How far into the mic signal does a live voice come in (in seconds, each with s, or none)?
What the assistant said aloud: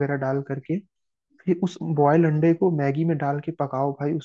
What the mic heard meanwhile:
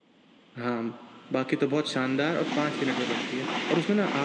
0.6 s